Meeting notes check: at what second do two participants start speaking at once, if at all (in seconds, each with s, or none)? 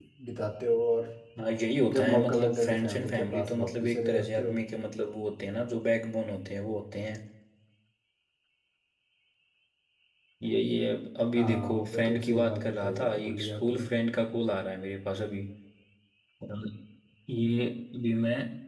1.9 s